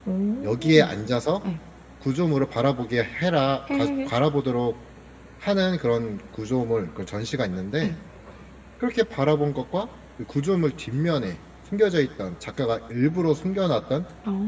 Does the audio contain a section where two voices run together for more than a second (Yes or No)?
No